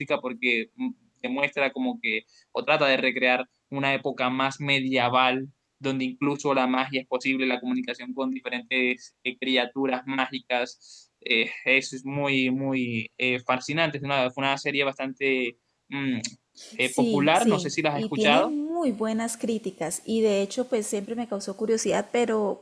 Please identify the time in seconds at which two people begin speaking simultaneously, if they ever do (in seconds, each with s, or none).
16.8 s